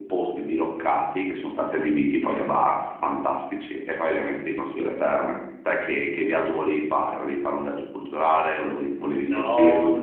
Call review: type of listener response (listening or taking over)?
taking over